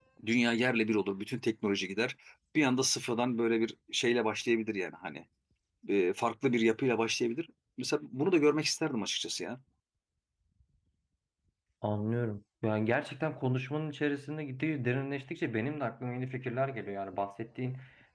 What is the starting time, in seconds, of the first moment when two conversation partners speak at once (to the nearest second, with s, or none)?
none